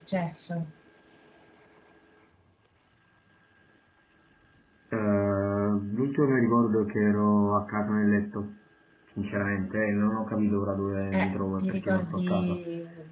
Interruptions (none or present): present